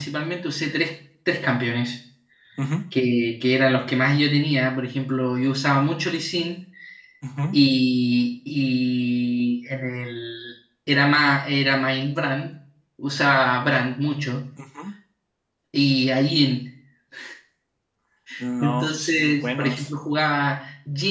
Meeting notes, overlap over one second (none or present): present